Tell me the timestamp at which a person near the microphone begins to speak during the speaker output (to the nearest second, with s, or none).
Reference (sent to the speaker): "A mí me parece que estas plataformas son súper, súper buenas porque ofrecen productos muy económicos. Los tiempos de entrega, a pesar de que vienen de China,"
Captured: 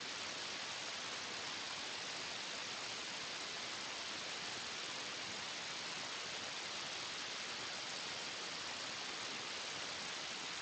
none